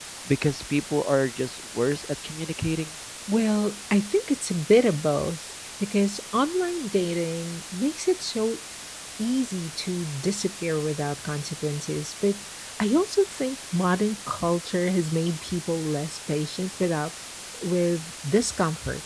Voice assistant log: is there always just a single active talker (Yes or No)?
Yes